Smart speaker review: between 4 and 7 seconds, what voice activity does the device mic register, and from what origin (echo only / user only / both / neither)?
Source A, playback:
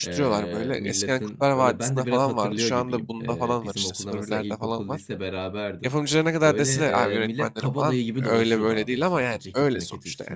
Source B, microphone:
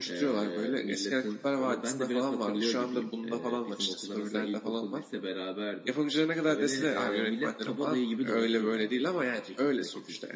echo only